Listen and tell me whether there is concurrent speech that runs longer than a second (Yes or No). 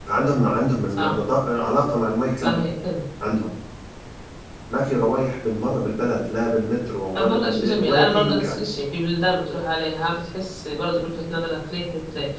Yes